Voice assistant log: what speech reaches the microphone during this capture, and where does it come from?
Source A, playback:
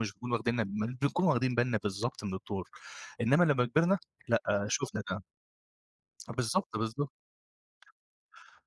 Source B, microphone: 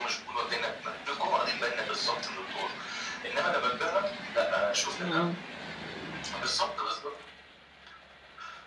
both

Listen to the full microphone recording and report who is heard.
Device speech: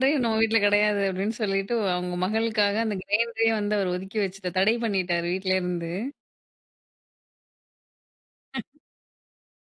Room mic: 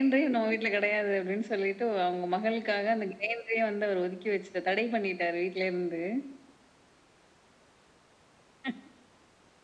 echo only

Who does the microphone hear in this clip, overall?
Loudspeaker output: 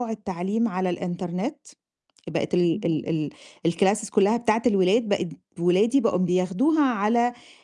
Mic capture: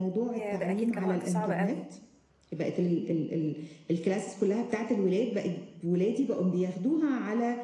both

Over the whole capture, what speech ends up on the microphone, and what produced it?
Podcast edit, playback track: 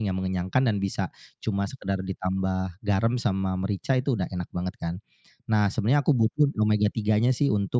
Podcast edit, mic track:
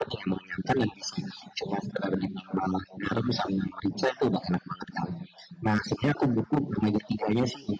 echo only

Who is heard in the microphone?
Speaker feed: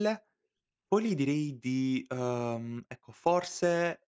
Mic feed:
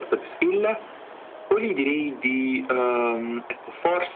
echo only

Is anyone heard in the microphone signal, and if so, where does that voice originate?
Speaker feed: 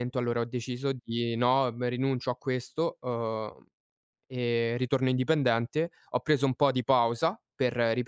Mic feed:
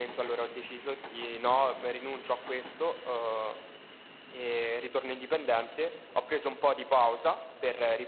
echo only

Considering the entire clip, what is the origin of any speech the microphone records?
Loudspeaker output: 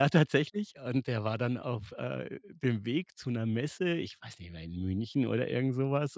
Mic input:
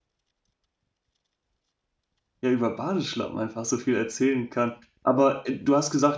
user only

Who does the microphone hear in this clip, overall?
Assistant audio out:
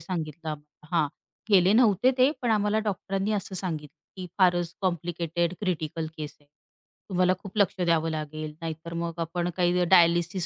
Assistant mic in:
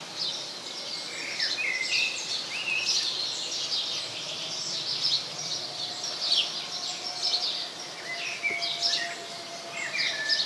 neither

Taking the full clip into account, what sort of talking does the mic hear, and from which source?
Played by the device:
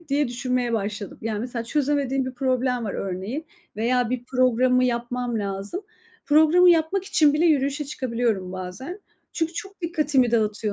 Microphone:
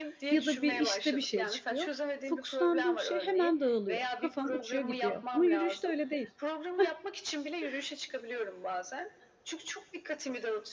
both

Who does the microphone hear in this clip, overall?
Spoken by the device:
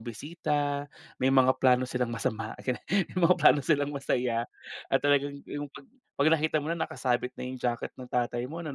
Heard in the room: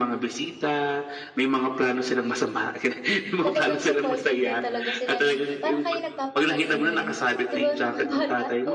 both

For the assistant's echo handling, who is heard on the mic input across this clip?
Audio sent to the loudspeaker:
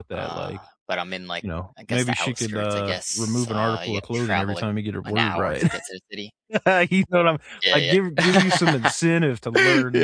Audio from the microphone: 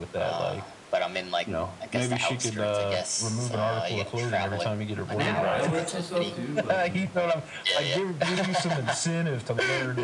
both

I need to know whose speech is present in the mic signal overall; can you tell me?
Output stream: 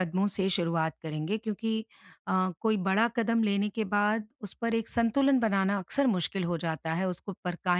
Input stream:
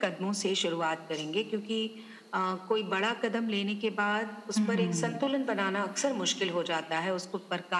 both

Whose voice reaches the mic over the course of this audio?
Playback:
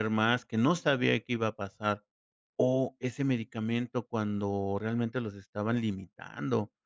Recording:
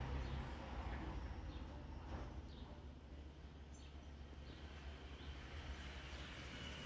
neither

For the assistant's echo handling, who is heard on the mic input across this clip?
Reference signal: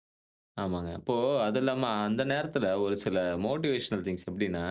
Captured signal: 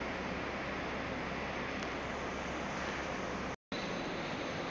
neither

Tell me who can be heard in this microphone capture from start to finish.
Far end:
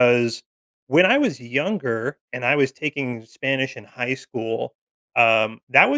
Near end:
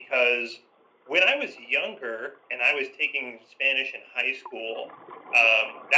echo only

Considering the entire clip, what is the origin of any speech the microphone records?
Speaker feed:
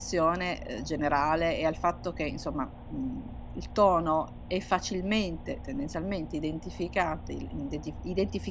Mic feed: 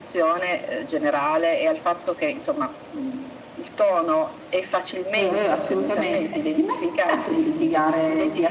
both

